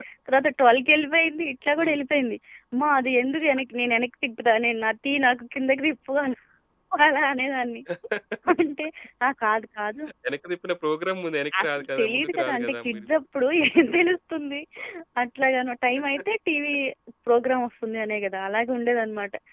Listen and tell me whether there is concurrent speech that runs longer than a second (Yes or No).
Yes